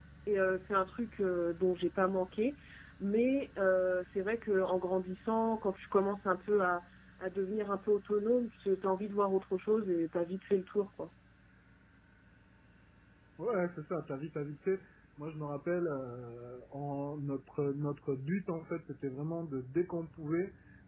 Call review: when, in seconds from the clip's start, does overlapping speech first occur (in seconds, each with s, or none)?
none